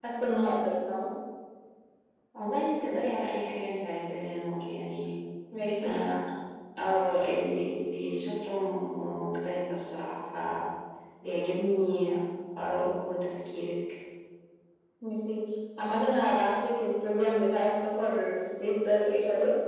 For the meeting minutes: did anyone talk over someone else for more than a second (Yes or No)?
No